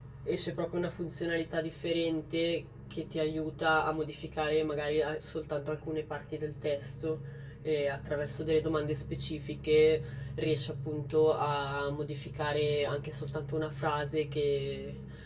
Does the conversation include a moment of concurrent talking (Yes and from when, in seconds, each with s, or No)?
No